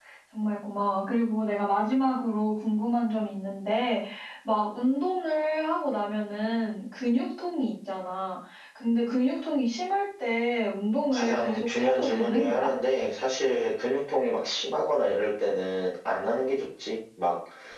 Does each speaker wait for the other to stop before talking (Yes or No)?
No